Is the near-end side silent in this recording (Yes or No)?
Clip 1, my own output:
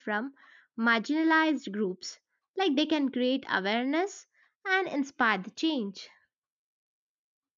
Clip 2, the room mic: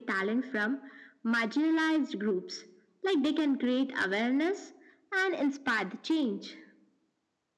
Yes